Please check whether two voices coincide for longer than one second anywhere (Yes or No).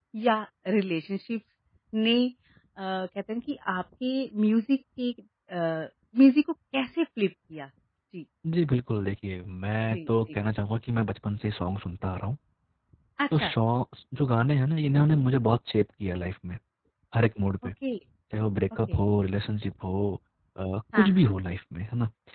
No